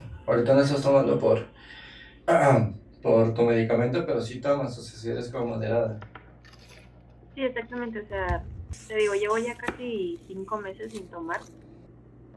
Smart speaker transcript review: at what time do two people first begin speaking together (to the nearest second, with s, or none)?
none